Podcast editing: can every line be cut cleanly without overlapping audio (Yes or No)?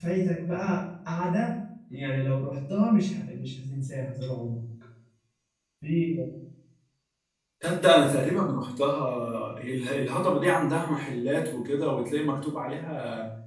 Yes